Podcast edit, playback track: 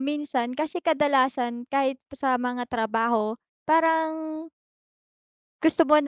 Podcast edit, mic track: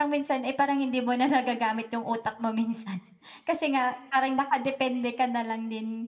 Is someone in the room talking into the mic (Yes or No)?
Yes